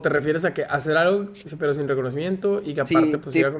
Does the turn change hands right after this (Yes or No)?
Yes